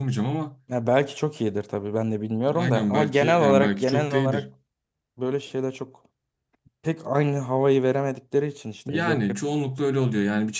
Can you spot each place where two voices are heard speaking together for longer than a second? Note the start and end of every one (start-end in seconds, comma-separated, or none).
2.5-4.4